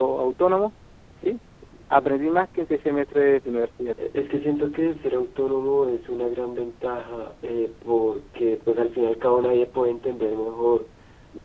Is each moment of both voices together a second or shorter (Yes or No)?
Yes